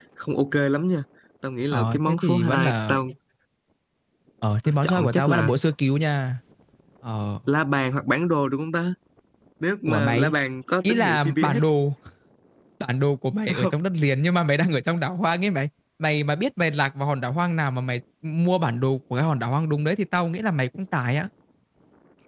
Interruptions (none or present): present